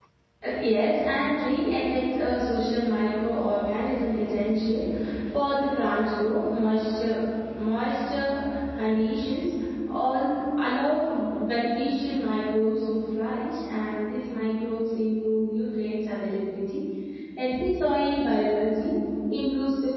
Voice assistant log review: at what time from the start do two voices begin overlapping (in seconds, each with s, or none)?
none